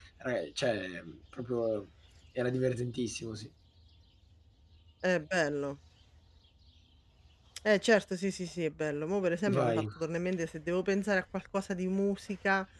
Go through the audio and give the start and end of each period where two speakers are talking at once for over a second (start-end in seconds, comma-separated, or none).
none